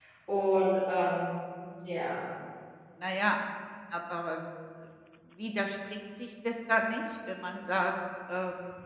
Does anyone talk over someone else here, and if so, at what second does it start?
none

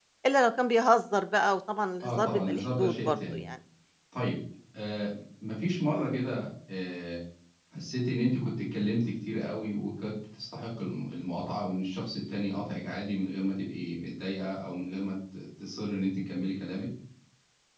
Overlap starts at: 2.0 s

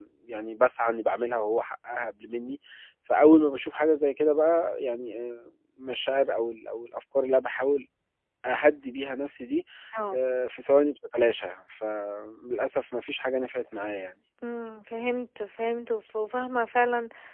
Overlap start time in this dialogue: none

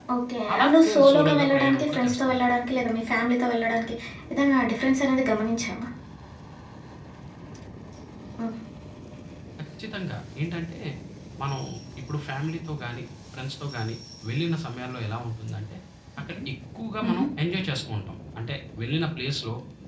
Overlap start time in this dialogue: 0.5 s

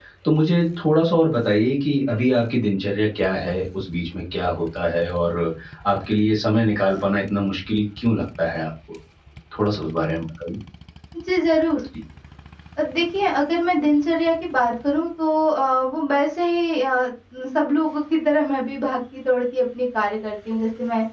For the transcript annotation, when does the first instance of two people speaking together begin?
none

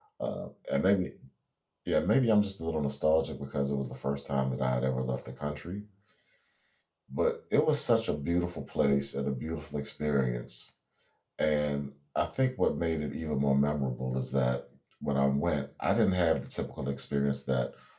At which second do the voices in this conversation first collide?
none

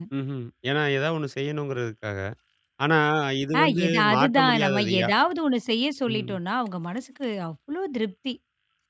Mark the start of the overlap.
3.6 s

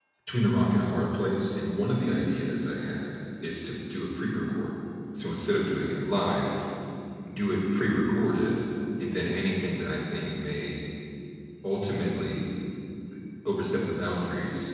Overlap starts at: none

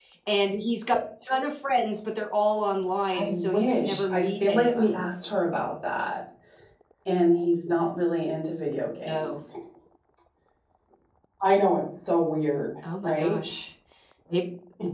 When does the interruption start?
3.1 s

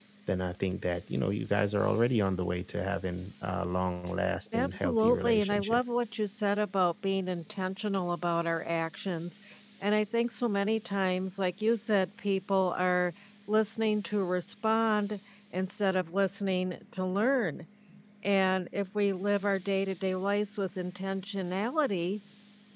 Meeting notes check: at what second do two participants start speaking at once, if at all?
4.5 s

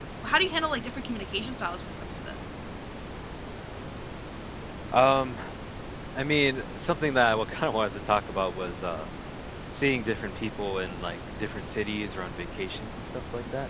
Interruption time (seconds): none

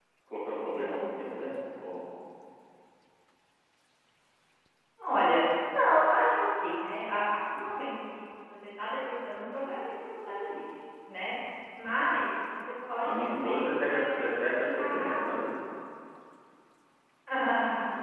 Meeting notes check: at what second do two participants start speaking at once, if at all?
13.0 s

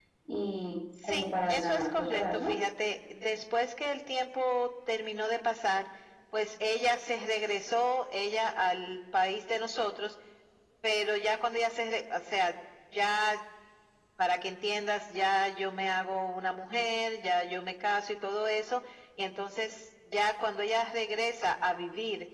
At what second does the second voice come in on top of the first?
1.1 s

